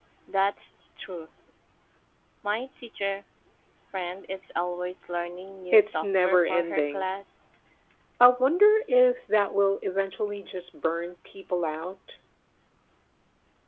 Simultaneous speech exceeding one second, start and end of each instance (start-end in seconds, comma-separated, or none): 5.7-7.1